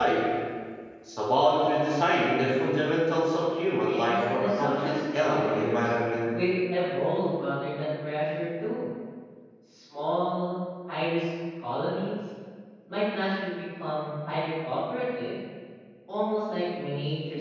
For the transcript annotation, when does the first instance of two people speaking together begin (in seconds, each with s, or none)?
3.8 s